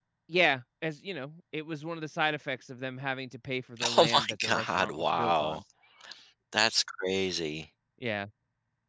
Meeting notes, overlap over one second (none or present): present